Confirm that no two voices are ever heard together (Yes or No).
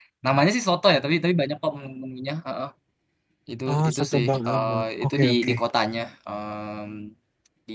No